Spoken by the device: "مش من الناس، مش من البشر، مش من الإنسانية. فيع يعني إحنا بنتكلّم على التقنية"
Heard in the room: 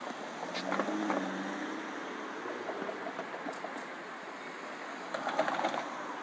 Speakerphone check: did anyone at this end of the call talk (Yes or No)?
No